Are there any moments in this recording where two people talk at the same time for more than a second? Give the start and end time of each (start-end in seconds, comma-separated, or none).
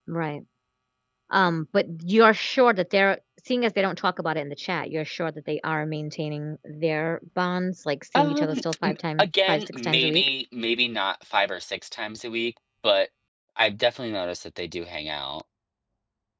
8.2-10.3